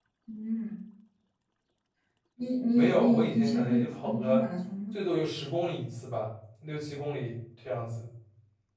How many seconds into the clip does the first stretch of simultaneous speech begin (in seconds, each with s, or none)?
2.7 s